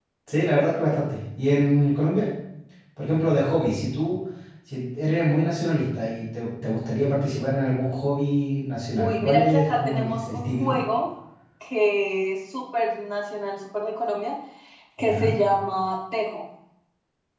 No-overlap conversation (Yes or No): No